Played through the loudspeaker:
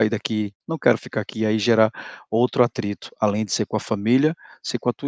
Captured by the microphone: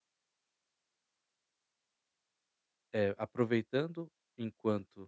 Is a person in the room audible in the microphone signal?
Yes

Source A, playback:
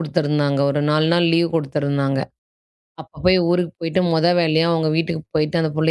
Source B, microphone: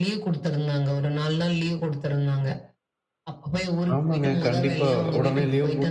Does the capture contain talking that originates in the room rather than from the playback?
Yes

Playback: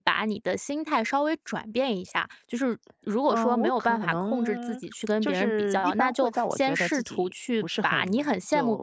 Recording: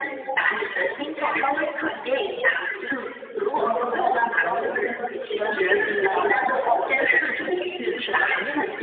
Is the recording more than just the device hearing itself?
No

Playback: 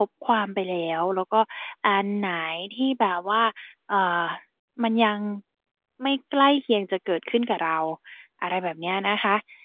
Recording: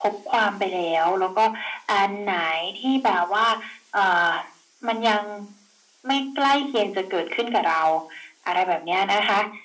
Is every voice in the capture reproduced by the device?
Yes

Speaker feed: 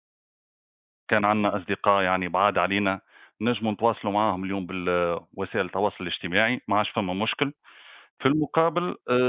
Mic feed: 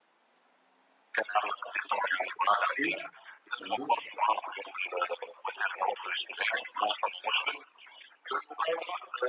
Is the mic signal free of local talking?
No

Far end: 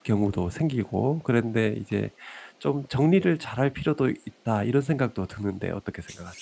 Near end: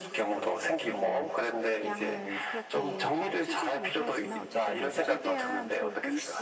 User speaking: Yes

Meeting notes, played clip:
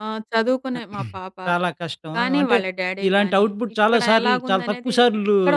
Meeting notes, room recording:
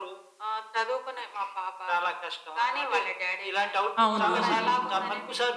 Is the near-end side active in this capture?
Yes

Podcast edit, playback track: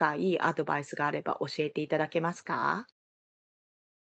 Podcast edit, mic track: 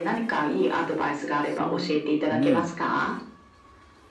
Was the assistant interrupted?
Yes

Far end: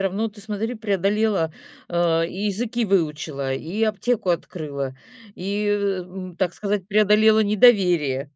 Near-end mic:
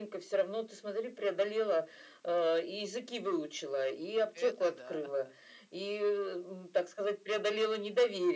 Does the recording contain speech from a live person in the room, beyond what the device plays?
Yes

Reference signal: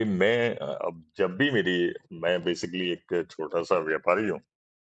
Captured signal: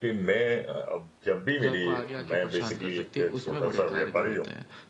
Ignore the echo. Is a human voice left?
Yes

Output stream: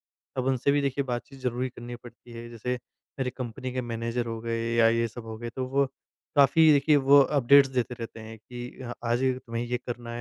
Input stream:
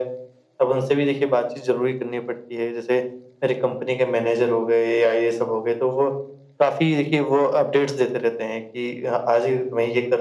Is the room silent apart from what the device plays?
Yes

